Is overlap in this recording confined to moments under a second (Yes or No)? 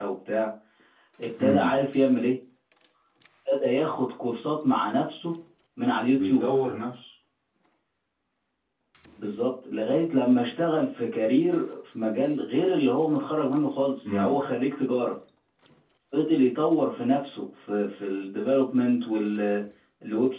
Yes